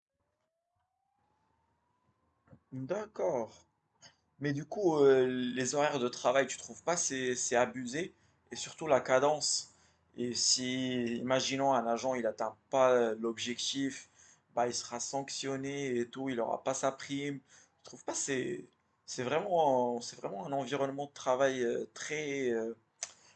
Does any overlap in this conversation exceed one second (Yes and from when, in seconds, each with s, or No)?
No